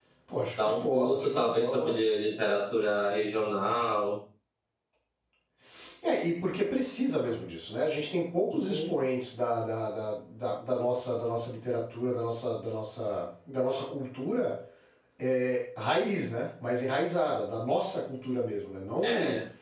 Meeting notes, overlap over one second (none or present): present